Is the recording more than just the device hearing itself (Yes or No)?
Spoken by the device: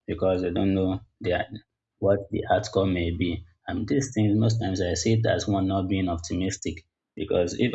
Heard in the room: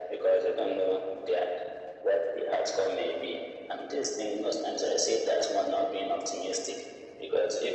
No